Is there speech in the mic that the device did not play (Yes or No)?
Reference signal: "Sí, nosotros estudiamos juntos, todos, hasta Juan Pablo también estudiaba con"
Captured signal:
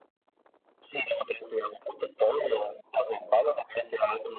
No